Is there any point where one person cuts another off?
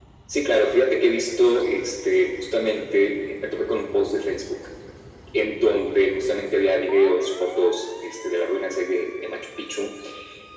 No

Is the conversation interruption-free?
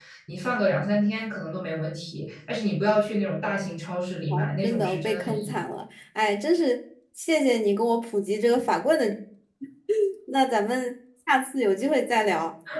No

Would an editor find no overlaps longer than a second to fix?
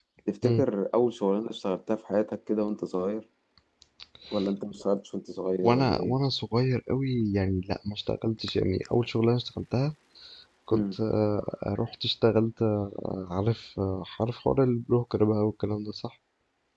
Yes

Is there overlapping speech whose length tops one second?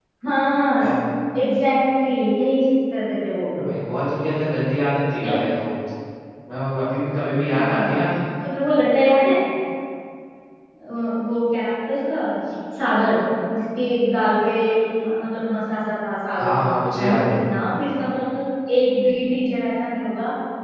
No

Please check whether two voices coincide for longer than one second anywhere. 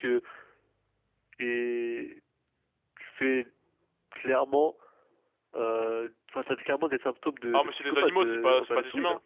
Yes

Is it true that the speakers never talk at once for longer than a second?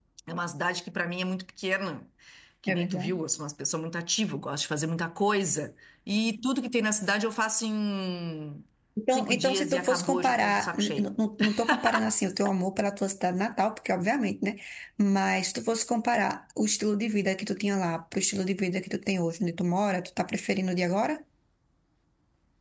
No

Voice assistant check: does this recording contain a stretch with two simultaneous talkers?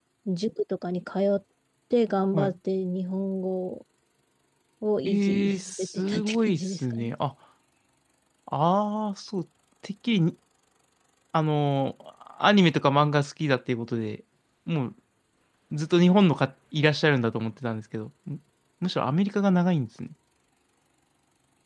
Yes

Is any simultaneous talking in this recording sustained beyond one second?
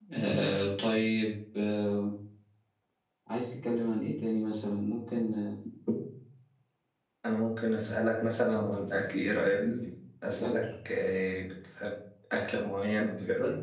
No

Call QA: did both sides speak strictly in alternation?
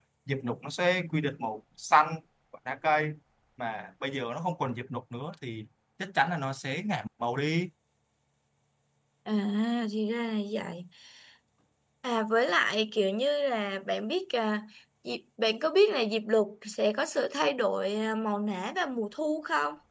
Yes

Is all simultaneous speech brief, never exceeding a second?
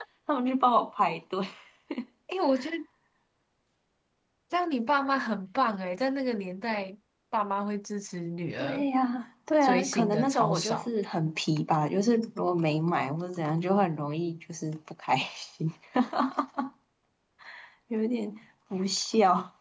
No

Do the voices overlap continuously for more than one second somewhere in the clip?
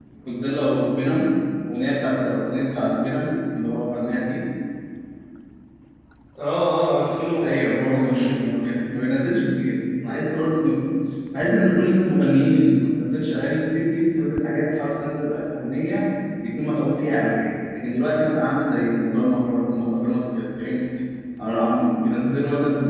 Yes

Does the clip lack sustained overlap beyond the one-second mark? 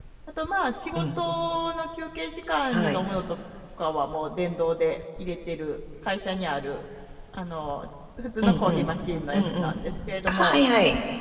Yes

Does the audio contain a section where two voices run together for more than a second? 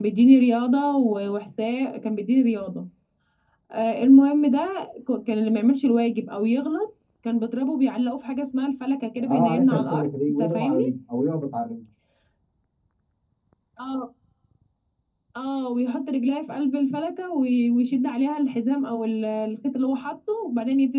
Yes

